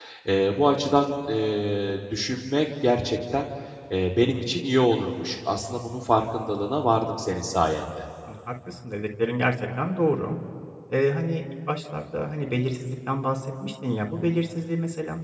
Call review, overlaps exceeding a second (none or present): none